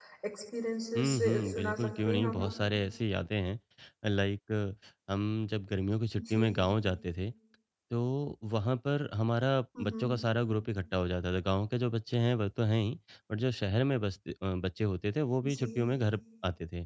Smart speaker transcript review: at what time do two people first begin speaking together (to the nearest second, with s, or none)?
1 s